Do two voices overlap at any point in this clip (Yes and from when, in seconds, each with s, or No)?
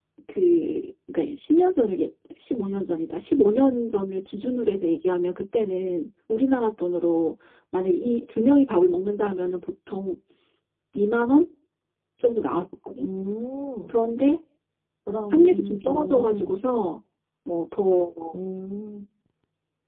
Yes, from 15.3 s